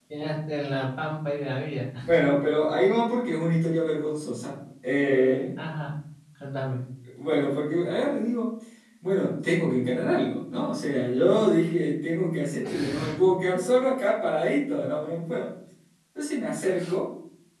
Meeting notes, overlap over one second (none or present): none